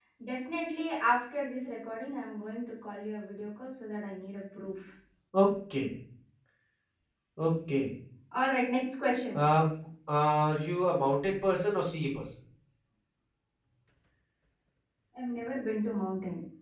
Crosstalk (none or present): none